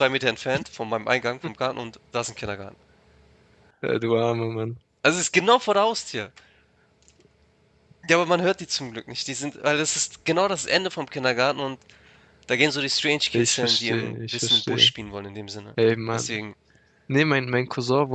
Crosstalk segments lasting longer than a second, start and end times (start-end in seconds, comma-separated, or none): 13.3-14.9